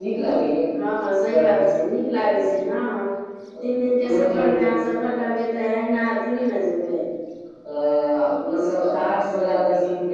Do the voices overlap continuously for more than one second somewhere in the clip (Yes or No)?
Yes